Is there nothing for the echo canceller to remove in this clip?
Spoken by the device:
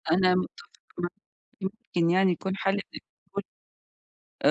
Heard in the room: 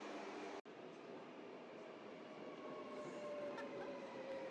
Yes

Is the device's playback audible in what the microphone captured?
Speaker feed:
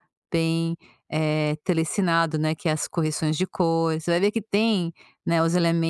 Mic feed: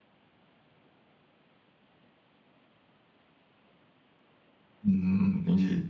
No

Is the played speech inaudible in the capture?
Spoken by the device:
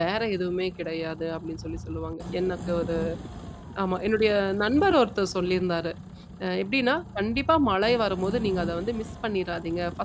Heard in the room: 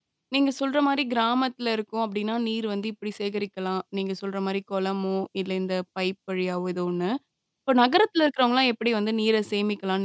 Yes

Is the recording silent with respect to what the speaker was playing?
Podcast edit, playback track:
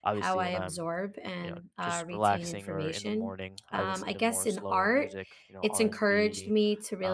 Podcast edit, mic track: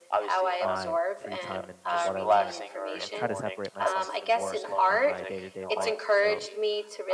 No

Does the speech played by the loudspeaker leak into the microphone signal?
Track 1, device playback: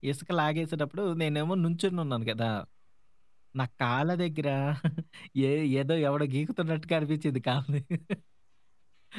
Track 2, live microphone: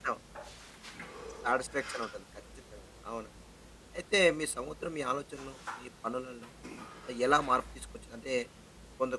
No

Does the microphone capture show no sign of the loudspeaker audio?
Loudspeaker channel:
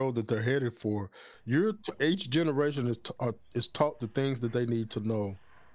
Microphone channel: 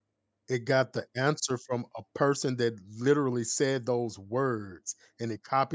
Yes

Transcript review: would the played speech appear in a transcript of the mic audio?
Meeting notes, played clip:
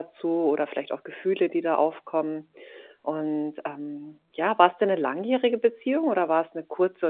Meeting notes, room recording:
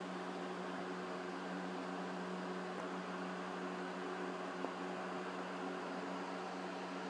No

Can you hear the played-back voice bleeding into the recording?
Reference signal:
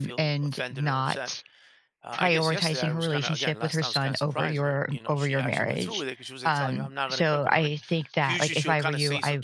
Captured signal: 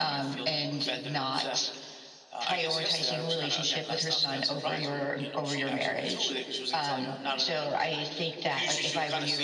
Yes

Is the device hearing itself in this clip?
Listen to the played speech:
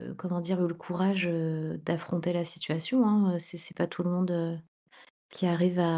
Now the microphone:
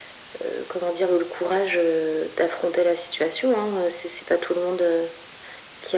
Yes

